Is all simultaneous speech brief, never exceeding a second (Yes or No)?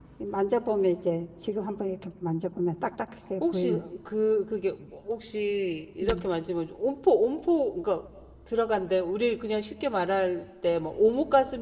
Yes